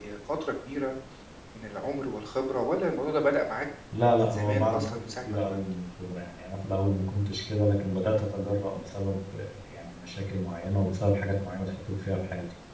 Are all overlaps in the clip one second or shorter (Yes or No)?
No